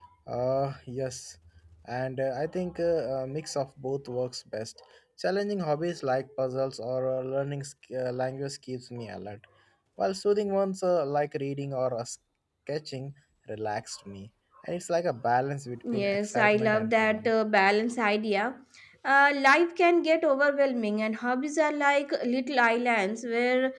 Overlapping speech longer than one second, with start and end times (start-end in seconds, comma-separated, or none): 15.9-17.3